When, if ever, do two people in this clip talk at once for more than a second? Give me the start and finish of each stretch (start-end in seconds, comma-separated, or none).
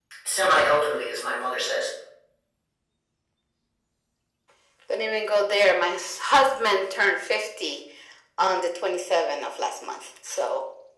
none